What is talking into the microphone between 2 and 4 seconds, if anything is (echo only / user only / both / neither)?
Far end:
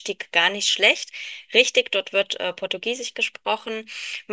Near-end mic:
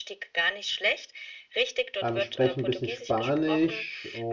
both